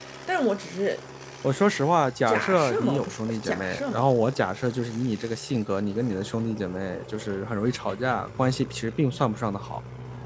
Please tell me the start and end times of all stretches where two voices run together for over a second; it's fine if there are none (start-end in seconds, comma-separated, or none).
2.3-4.1